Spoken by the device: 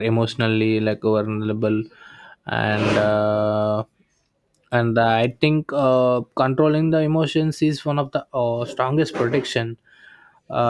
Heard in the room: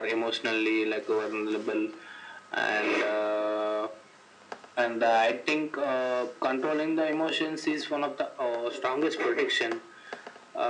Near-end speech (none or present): none